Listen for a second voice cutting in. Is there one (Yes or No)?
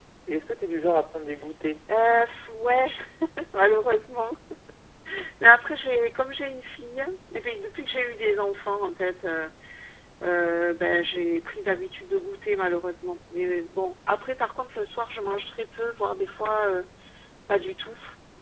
No